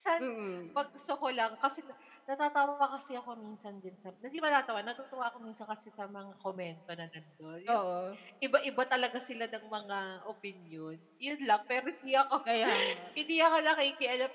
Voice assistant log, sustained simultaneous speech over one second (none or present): none